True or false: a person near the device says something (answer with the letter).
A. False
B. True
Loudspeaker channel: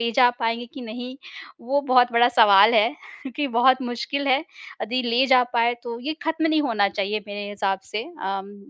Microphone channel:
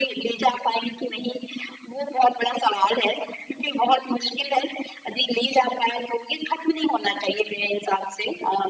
A